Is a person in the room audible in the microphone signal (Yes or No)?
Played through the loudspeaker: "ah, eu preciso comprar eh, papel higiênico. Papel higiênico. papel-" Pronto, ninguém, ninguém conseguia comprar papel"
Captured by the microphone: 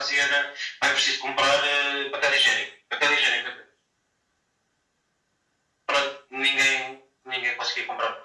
No